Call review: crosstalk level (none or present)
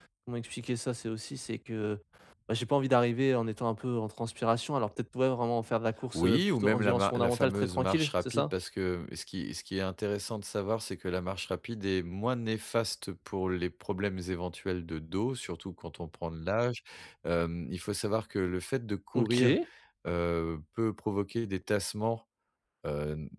present